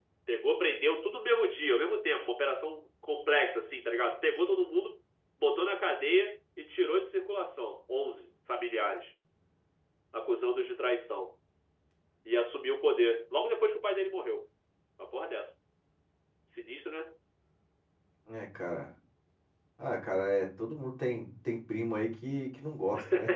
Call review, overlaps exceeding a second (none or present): none